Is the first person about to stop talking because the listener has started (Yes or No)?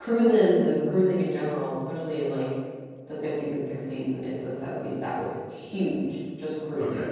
No